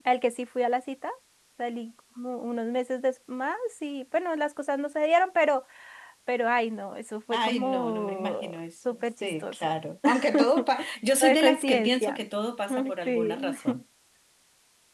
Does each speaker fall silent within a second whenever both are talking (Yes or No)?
No